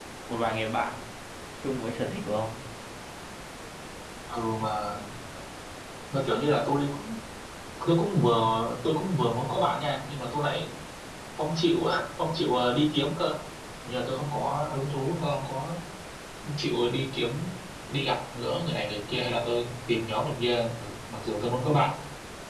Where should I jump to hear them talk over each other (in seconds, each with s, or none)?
none